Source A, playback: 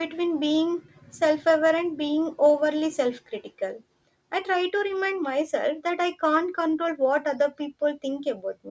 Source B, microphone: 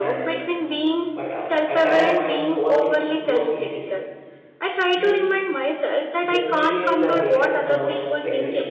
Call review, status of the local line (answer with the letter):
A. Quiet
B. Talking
B